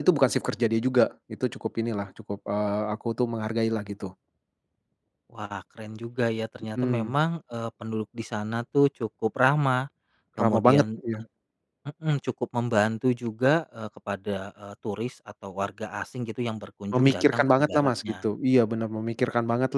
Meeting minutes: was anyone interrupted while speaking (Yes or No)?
Yes